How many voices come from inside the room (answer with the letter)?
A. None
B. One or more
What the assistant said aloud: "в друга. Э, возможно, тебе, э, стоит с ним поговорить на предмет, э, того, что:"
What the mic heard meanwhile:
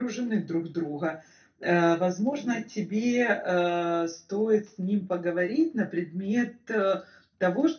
A